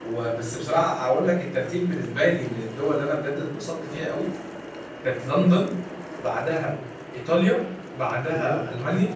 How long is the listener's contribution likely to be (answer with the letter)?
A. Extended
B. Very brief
B